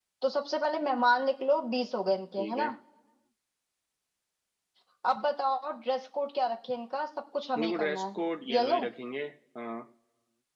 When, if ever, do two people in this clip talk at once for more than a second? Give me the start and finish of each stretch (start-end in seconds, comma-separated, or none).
none